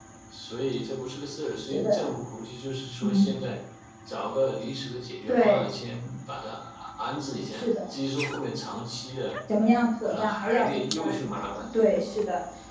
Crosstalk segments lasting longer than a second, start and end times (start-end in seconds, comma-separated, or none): 10.0-11.7